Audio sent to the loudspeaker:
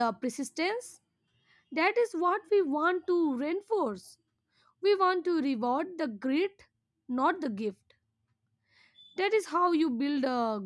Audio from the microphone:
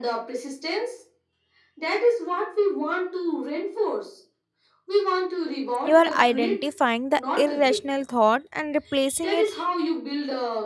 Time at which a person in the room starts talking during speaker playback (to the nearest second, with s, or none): 6 s